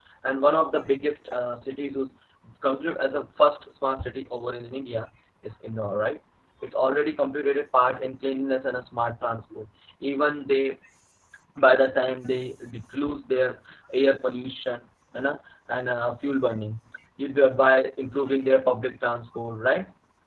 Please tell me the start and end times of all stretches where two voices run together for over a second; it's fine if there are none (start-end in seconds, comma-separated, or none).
none